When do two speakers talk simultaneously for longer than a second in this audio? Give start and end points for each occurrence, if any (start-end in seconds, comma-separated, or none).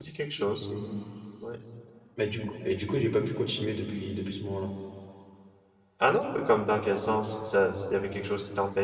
none